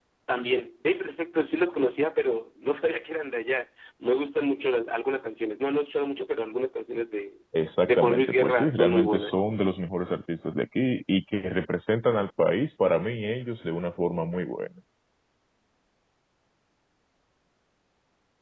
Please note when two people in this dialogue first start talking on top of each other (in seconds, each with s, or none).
7.9 s